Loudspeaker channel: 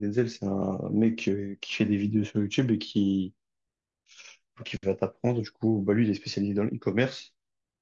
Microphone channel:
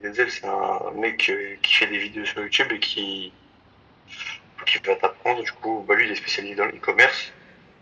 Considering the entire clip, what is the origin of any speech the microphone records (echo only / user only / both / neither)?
echo only